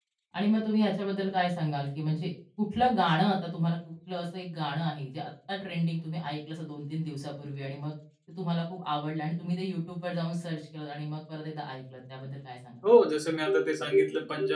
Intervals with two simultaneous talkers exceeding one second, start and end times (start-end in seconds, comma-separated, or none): none